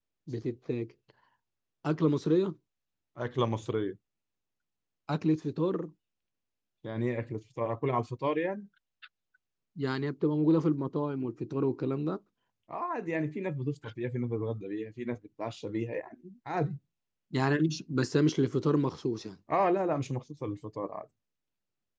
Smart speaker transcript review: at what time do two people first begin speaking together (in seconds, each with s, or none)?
none